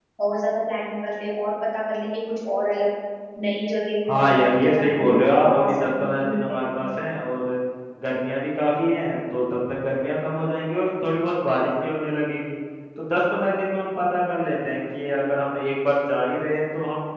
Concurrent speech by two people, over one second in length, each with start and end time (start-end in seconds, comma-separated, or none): 4.1-6.7